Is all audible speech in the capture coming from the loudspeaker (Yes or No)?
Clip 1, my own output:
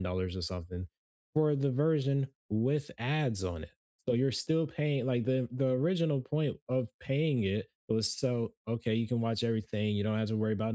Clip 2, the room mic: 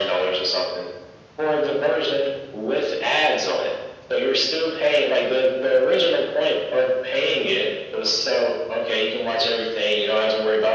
Yes